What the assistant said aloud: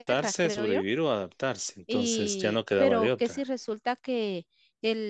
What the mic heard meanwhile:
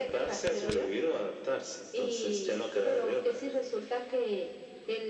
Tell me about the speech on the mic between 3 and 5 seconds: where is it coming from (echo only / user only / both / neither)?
echo only